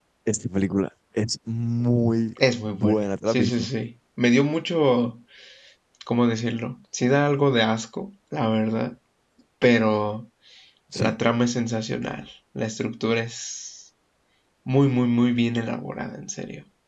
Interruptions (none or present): present